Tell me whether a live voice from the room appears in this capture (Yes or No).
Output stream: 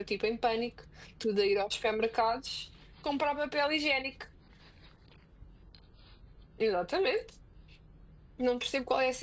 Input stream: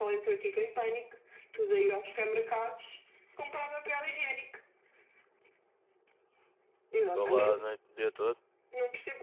Yes